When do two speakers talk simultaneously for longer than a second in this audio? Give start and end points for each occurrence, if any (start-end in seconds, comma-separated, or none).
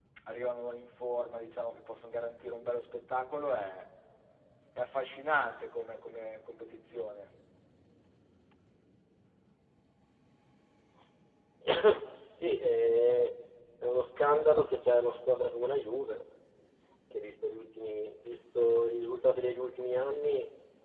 none